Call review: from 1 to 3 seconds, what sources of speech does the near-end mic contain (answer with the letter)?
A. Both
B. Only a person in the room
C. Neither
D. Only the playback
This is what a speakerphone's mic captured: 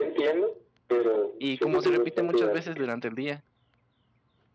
A